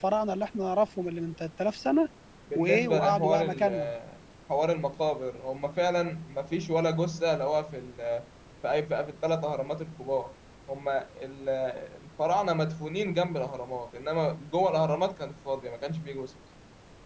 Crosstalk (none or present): present